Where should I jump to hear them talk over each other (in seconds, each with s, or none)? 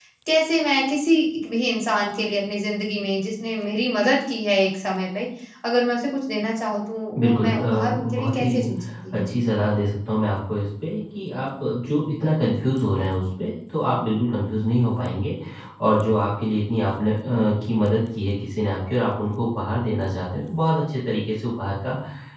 7.1 s